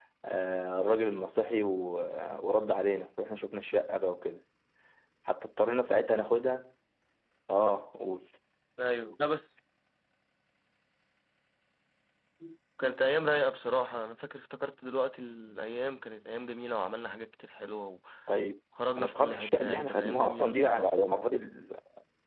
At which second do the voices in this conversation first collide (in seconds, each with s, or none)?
19.0 s